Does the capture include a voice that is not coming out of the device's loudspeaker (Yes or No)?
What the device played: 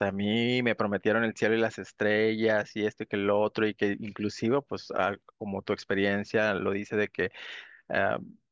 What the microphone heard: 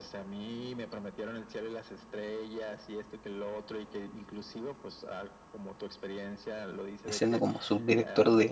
Yes